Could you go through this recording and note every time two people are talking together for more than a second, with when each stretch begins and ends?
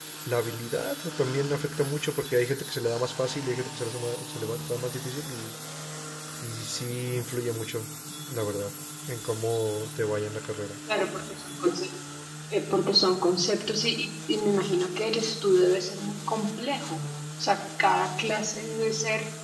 none

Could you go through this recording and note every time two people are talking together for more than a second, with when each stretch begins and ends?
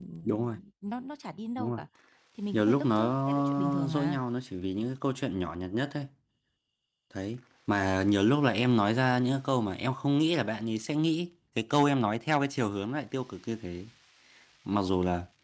2.5-4.2

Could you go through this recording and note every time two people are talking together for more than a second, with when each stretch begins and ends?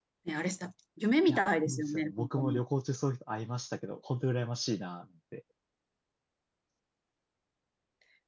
1.3-2.6

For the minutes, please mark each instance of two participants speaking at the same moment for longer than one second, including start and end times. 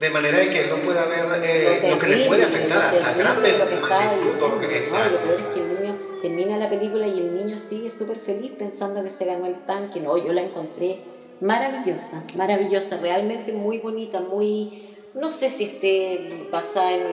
1.6-5.1

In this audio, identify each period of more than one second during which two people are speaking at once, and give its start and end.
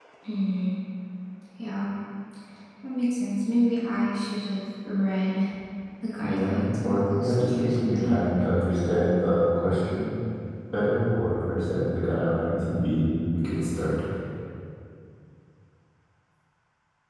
6.2-8.2

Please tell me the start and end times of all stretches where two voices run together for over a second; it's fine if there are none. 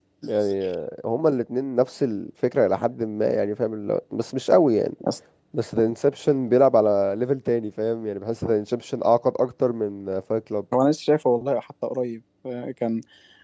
none

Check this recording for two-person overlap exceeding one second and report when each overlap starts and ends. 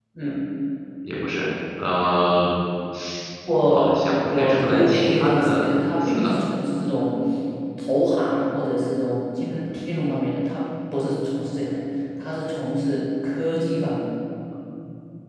3.7-6.3

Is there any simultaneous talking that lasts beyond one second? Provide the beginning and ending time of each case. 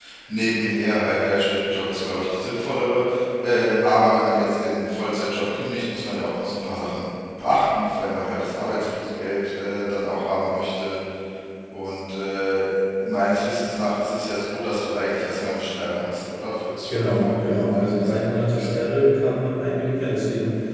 16.9-18.7

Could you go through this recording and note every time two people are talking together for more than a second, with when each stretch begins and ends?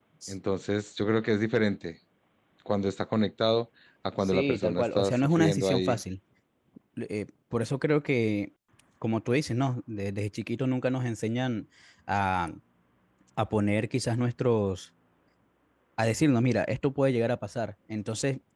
4.2-6.0

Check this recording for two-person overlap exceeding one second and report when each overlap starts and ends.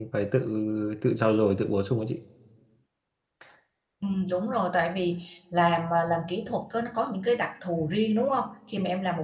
none

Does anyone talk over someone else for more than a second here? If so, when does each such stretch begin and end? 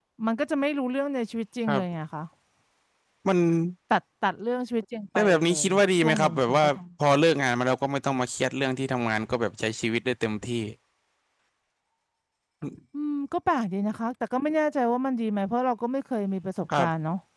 5.2-6.8

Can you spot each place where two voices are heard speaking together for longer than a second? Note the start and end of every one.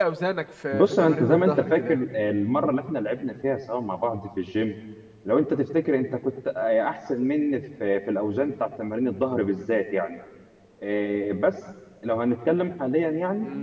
0.7-2.0

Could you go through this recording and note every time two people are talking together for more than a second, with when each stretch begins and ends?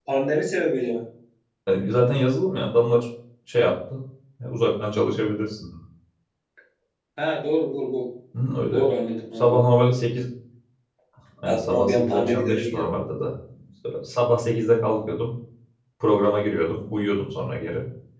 11.4-12.8

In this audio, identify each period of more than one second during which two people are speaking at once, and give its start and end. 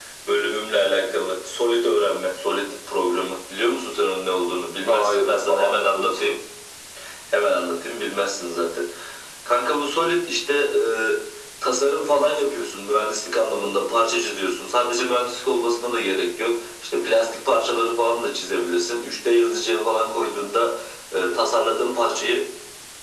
4.9-6.4

